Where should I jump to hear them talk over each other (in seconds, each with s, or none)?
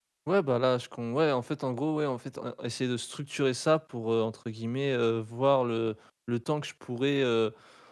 none